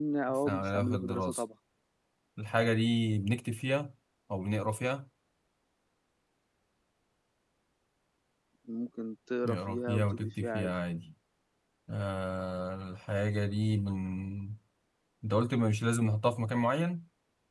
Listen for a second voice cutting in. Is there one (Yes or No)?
Yes